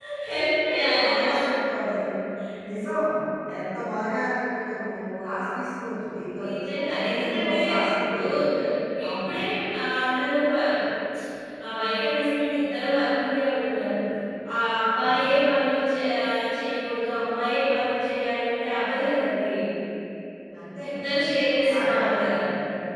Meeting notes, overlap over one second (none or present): present